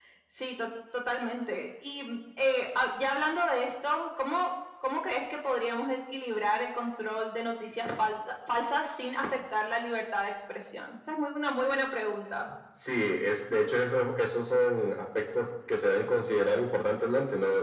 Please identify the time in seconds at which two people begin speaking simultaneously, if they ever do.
none

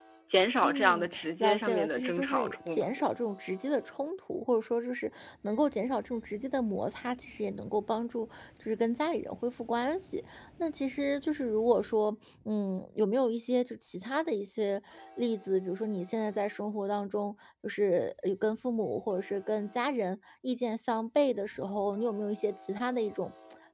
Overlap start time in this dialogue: 0.6 s

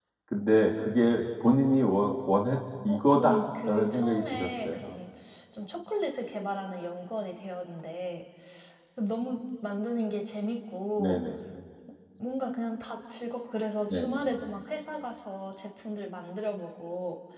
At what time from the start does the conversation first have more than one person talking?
2.9 s

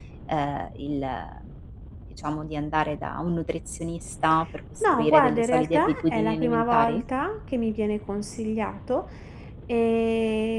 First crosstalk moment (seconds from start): 4.8 s

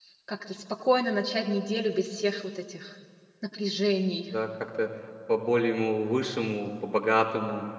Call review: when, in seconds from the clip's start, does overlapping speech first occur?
none

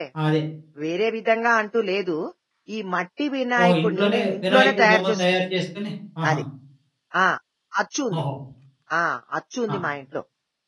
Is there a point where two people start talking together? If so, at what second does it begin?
3.6 s

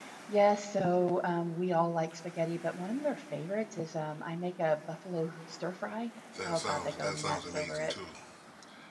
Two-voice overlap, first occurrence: 6.3 s

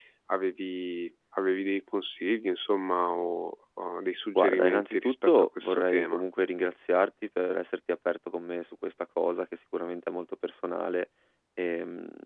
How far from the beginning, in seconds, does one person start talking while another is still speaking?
4.3 s

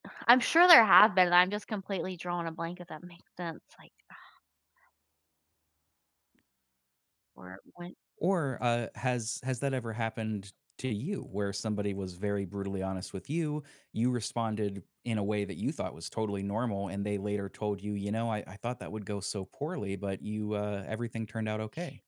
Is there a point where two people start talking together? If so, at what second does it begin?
none

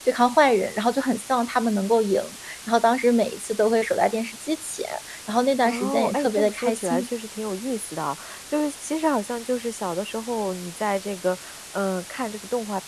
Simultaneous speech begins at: 5.6 s

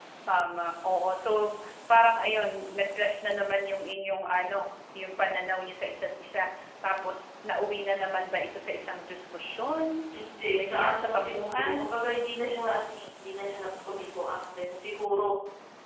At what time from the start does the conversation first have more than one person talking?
10.6 s

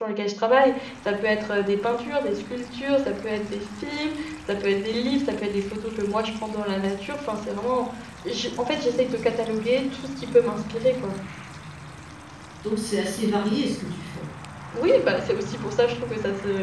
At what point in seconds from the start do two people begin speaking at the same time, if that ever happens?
none

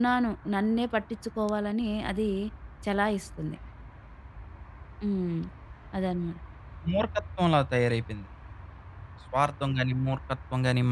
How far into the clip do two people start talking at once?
none

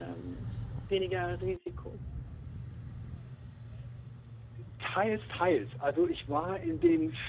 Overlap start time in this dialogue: none

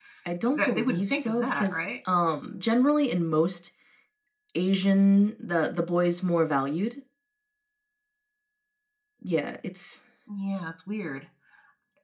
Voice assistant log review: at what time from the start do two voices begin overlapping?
0.5 s

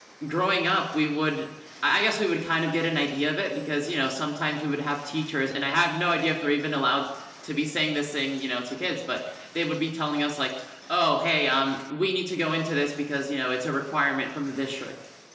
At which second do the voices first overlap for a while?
none

